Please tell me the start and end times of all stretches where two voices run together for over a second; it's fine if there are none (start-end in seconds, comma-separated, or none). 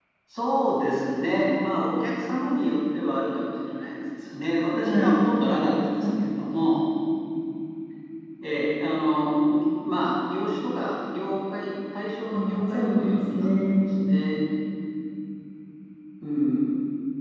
12.3-13.7